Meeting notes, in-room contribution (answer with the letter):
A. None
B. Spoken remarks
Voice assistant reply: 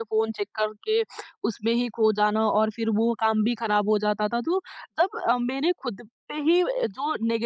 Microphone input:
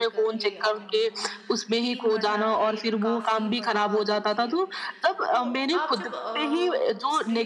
B